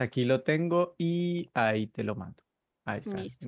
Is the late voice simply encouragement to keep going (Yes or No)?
No